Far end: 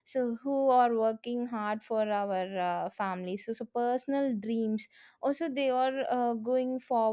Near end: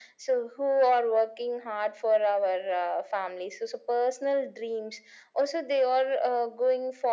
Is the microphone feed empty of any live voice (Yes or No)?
Yes